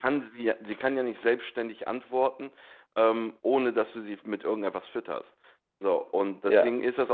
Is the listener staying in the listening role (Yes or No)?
Yes